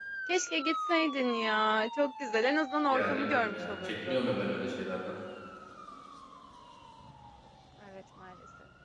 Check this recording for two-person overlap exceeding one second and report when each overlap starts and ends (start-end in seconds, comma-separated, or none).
2.9-4.2